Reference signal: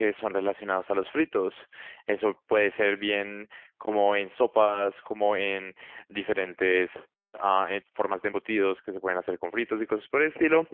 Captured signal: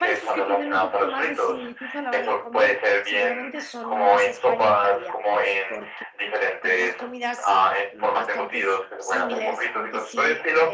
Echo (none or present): present